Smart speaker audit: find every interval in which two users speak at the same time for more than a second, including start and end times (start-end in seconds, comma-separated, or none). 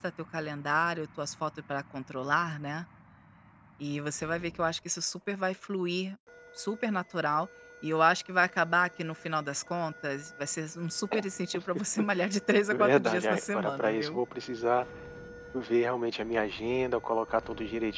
12.7-14.2